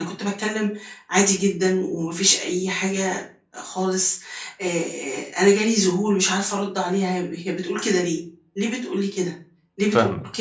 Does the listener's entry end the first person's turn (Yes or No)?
No